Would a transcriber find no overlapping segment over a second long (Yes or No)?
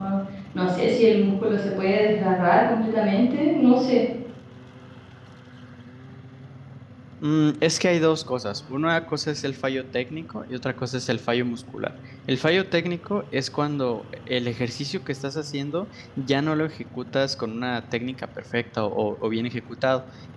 Yes